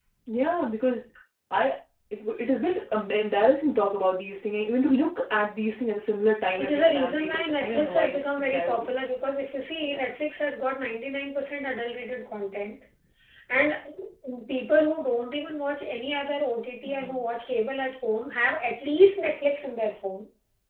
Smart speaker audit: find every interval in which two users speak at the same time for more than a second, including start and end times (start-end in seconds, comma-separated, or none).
6.6-8.9